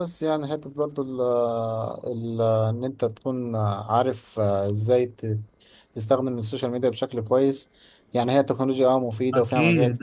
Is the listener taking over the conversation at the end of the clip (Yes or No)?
Yes